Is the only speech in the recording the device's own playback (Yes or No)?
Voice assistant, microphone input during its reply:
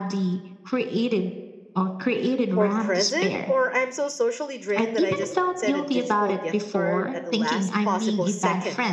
No